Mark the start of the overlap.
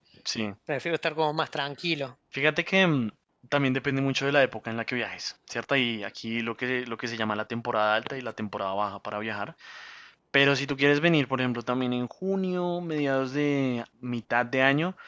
none

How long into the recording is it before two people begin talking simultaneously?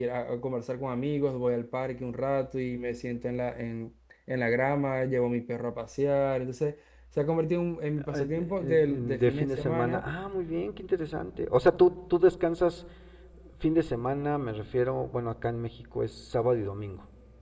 8.0 s

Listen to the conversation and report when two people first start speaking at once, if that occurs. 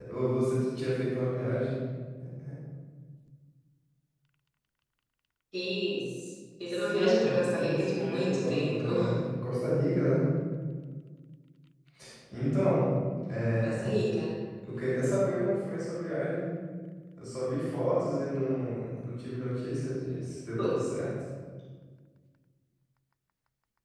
6.7 s

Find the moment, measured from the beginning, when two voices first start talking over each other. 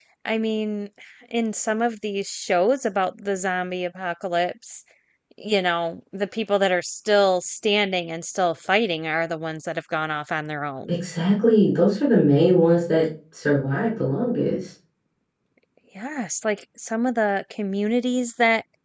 none

